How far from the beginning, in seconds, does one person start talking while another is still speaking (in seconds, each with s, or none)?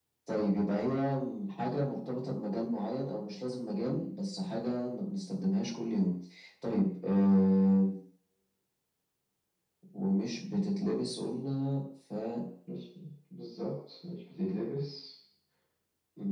none